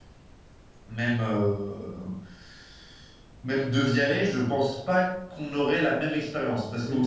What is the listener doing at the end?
listening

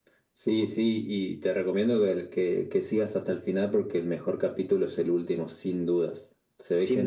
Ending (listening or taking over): listening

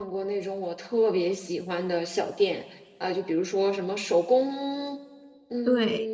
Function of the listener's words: listening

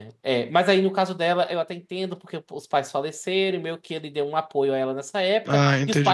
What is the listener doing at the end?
listening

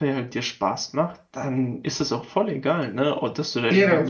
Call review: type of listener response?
listening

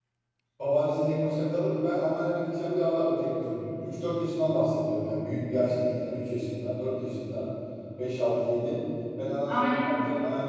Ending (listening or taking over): listening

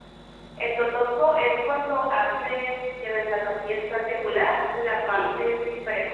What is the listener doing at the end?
listening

